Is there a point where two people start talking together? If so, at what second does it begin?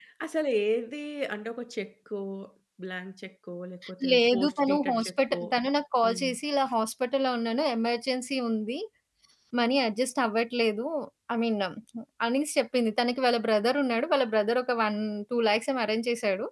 4.1 s

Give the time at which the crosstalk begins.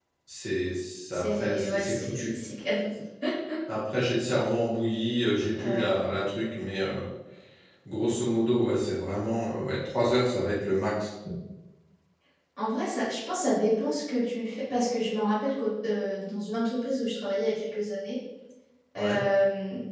1.1 s

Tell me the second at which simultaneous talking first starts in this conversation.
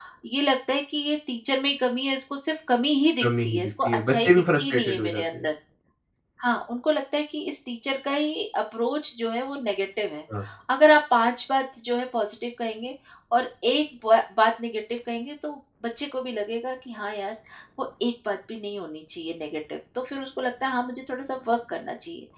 3.2 s

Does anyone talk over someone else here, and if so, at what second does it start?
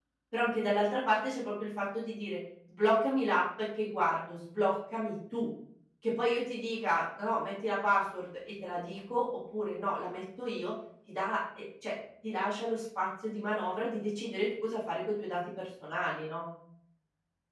none

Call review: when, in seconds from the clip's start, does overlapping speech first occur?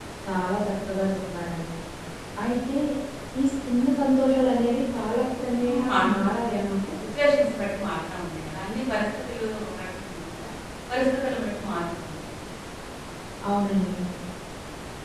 5.6 s

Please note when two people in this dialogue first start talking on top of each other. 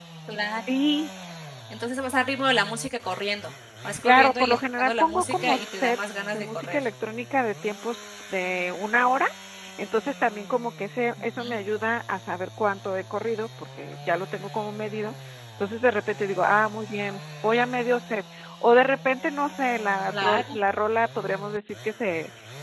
4.0 s

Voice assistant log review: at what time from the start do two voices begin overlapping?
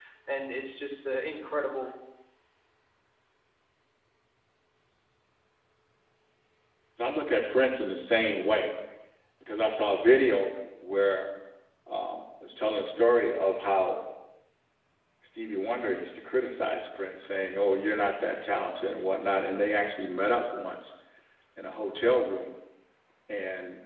none

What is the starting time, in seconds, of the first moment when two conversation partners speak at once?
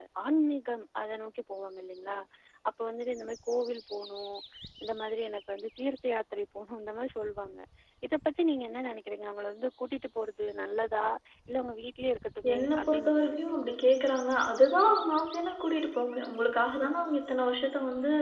12.4 s

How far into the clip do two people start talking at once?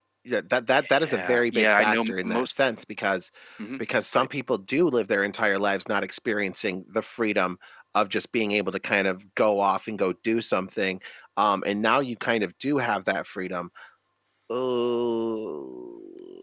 1.0 s

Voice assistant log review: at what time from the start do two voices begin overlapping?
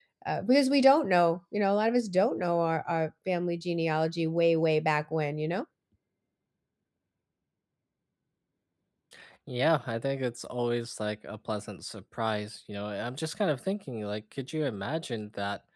none

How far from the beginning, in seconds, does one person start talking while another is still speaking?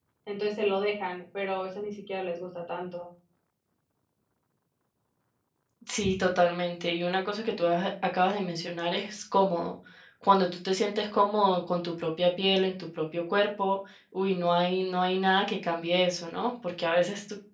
none

